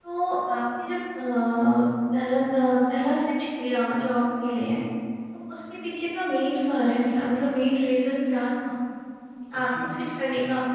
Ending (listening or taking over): listening